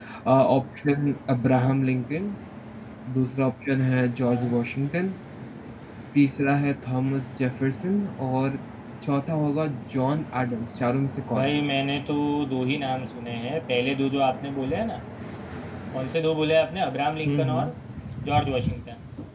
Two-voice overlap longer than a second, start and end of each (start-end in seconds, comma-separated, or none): none